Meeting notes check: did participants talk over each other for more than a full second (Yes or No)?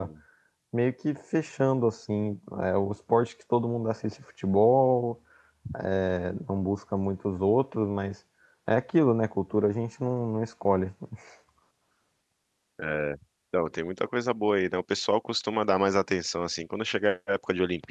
No